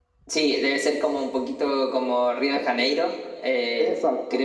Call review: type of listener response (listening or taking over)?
listening